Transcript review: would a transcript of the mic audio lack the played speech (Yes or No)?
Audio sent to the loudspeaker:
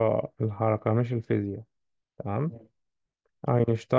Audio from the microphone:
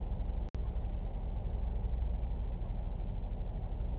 Yes